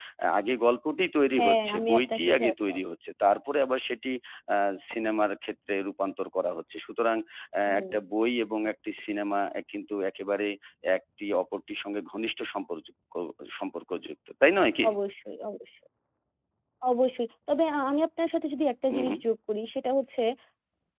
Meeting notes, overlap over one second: present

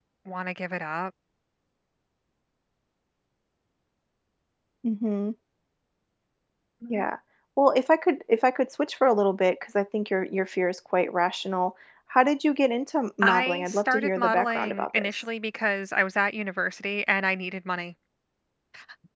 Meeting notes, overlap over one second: present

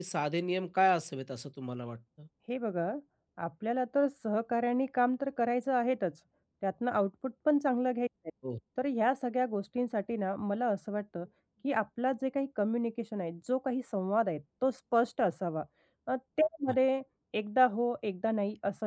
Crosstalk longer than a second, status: none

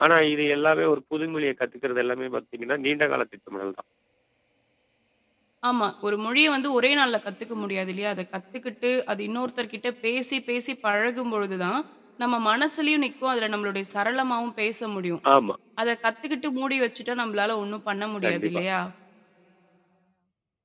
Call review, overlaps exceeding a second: none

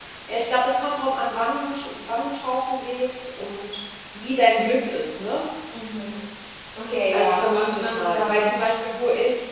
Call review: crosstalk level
present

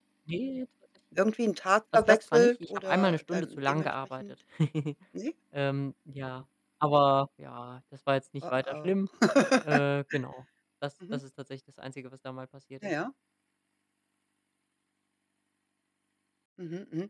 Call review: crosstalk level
present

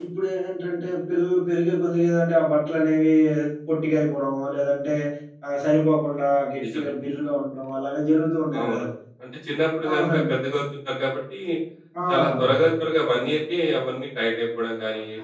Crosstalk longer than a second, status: none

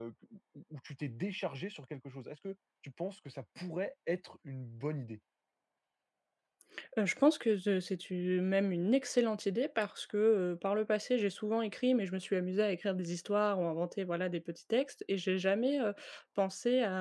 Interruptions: none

